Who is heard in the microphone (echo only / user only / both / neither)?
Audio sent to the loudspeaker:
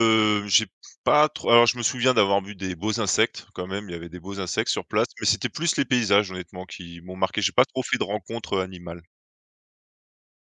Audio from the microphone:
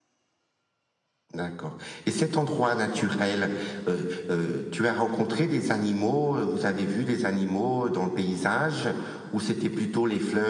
user only